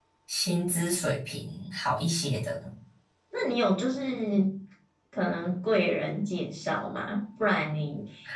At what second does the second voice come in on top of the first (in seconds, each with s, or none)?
none